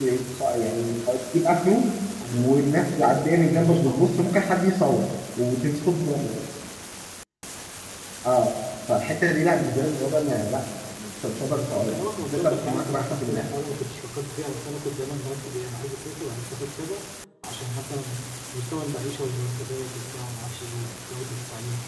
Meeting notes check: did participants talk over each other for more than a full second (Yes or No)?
Yes